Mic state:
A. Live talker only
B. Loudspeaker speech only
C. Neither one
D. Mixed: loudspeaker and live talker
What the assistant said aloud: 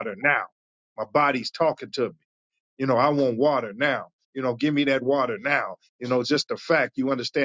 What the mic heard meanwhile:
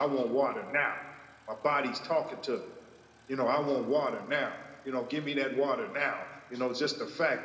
B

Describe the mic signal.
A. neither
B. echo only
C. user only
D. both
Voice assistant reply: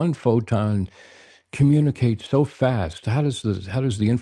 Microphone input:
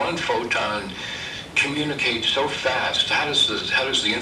B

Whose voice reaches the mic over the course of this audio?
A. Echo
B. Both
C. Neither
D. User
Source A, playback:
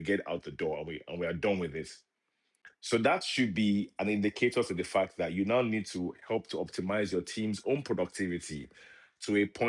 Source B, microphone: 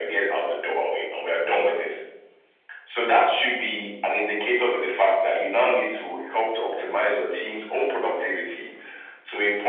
A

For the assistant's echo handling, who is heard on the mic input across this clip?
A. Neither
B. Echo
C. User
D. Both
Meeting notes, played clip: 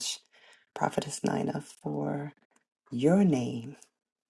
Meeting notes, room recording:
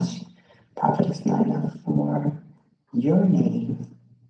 B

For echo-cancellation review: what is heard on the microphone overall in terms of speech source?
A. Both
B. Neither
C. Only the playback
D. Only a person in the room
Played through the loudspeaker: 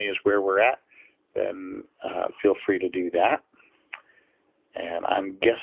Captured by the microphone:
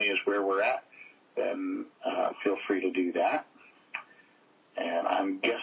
C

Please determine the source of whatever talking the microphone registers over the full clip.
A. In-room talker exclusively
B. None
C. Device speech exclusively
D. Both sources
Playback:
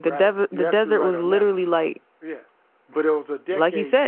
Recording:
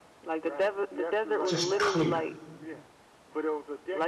D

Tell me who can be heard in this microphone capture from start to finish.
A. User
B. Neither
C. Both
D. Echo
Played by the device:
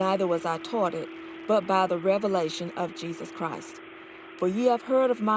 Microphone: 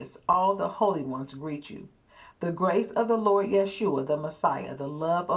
A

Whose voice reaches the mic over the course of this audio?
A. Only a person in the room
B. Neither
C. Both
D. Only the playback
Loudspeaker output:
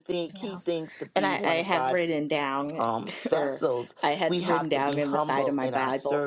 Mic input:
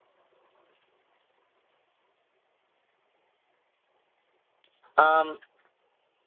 A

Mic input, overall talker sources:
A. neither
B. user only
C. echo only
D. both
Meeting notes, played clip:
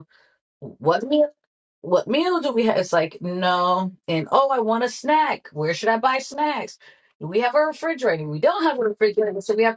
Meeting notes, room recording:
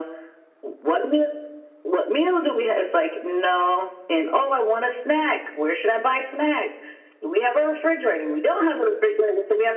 C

